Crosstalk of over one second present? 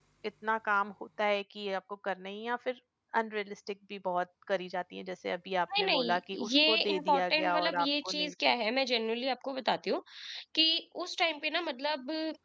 Yes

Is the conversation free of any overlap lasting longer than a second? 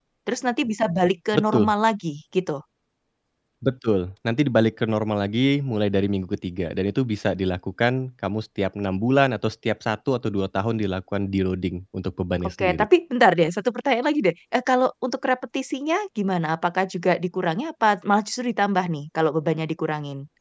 Yes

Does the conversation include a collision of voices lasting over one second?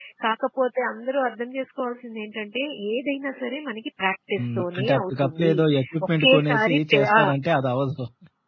Yes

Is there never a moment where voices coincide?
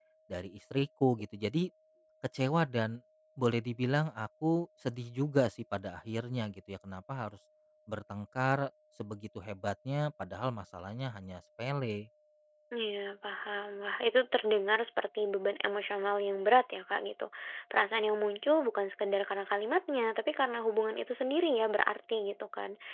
Yes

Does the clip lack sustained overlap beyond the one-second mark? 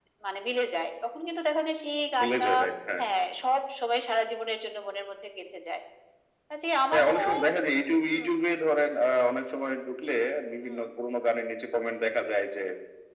Yes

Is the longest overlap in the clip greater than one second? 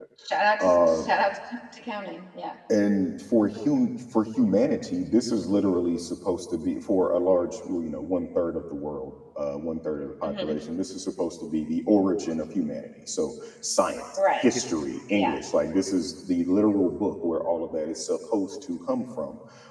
No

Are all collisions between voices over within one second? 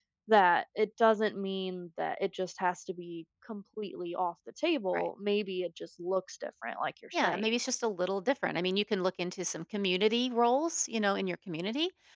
Yes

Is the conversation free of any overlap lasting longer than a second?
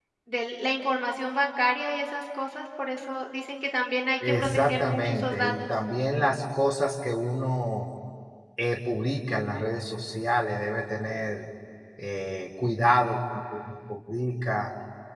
No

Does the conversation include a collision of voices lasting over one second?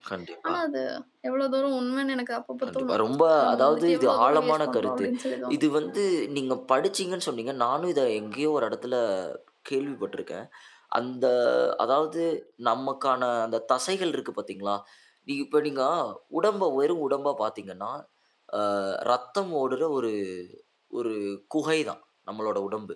Yes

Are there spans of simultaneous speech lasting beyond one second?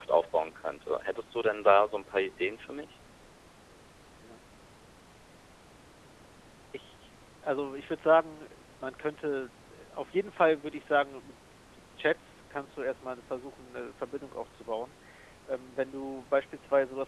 No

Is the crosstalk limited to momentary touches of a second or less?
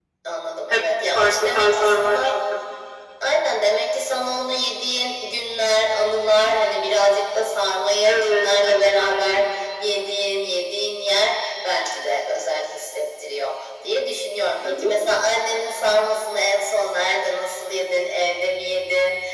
No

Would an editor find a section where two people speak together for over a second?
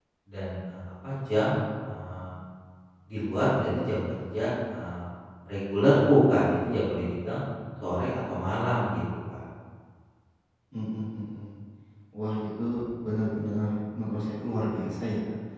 No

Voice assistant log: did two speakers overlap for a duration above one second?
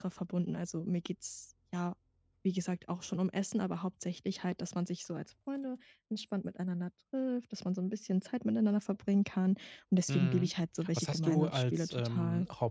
Yes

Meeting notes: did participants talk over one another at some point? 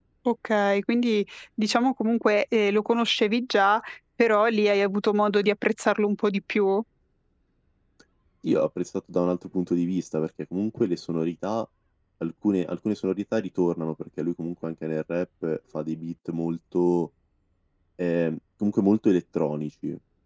No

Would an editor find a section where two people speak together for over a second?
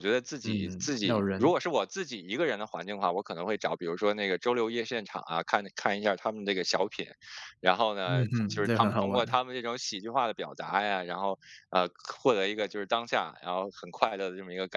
Yes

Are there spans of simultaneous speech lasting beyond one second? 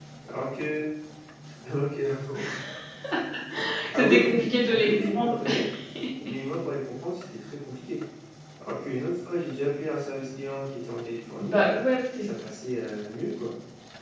Yes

